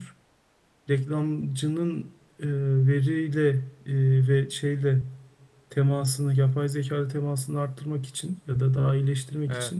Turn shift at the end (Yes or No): No